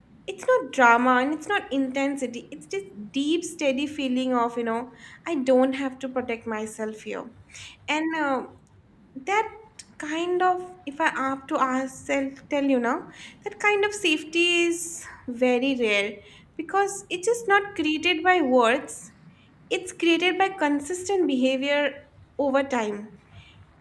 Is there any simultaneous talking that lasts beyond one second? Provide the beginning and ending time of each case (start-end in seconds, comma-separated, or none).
none